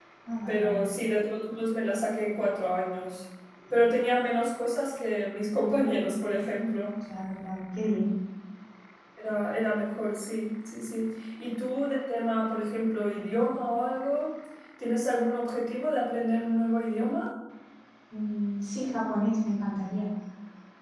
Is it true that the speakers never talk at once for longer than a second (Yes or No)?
Yes